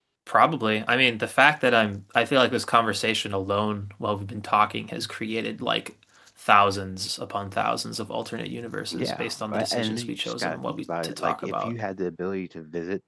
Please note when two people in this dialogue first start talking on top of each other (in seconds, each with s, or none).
8.9 s